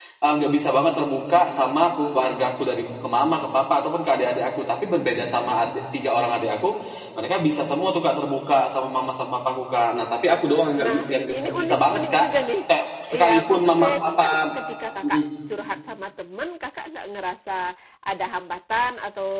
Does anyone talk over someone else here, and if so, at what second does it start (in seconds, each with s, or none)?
10.8 s